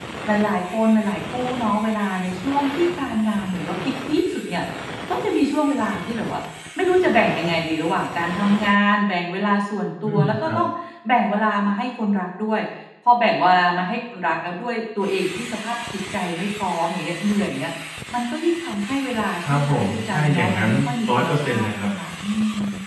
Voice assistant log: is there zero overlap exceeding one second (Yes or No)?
No